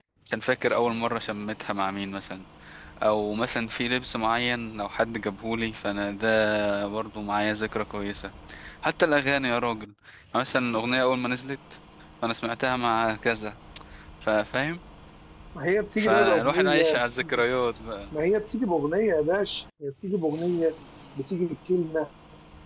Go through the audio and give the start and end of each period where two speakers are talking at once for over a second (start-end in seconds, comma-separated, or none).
16.0-17.4